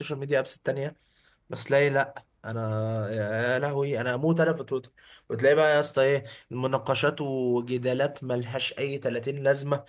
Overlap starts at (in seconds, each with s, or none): none